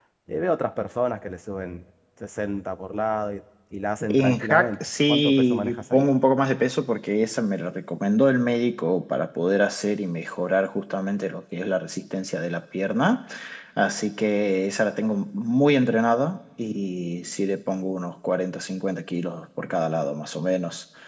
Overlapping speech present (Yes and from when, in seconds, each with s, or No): Yes, from 4.0 s